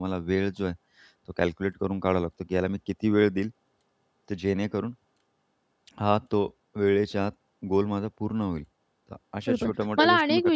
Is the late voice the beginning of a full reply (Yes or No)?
Yes